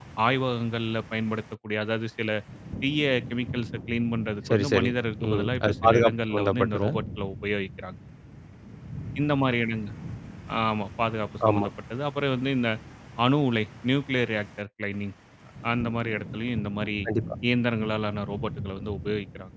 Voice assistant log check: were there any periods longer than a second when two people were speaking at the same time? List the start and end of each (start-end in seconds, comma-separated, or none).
5.3-6.9